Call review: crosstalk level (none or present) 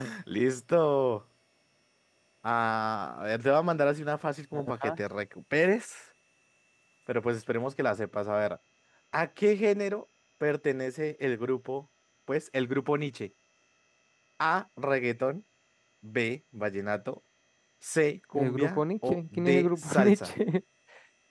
present